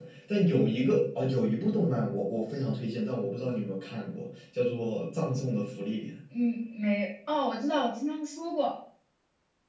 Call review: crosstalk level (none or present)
none